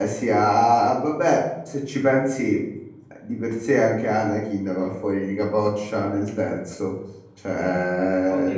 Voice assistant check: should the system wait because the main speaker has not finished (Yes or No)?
No